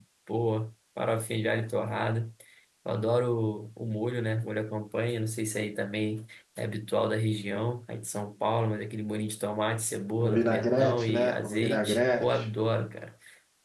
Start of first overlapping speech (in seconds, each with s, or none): 10.2 s